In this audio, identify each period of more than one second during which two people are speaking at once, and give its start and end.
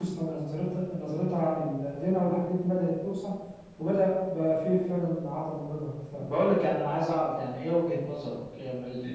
none

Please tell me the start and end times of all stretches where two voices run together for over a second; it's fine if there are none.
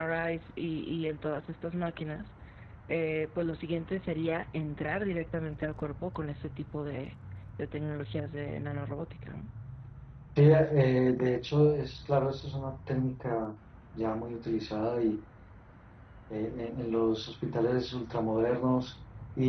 none

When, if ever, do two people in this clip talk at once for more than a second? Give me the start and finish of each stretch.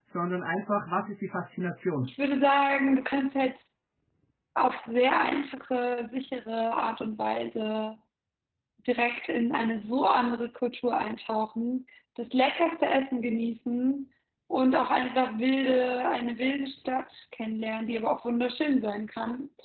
none

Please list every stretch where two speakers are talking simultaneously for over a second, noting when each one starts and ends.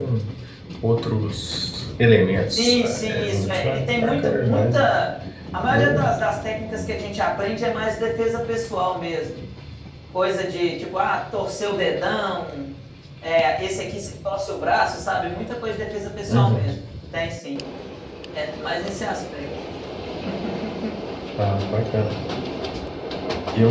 2.6-4.9

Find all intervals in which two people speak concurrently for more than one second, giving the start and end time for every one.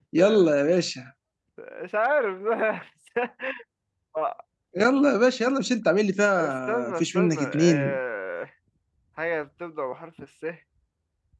6.3-8.0

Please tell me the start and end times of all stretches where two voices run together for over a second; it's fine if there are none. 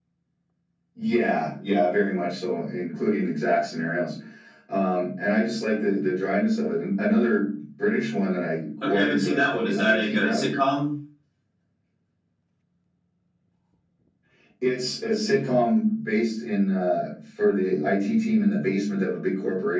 8.8-10.5

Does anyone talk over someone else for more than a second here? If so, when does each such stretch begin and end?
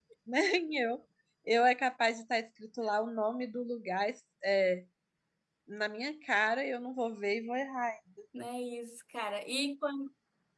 none

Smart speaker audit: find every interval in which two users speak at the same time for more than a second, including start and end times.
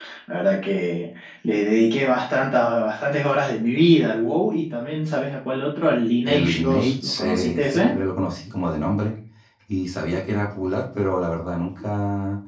6.2-8.0

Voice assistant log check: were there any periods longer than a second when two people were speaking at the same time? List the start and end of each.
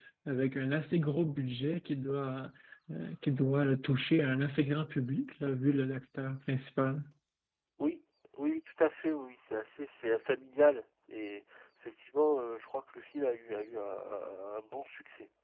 none

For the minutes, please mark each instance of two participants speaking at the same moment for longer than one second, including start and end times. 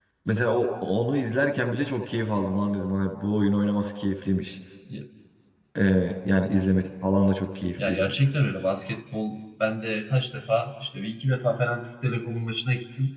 none

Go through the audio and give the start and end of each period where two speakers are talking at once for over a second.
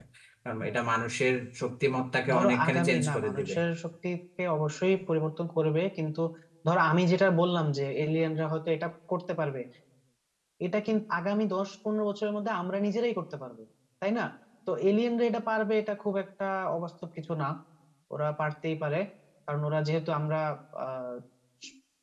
2.3-3.5

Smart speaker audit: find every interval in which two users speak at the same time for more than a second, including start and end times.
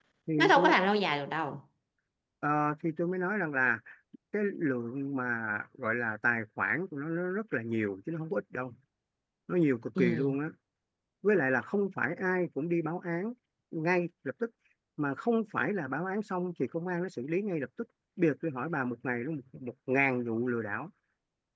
none

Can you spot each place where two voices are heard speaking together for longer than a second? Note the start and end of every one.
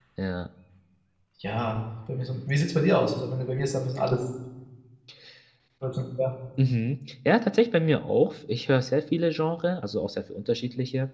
none

